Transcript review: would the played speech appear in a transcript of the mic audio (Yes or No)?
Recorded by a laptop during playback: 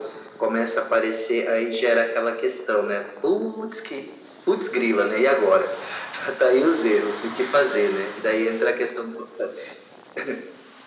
Yes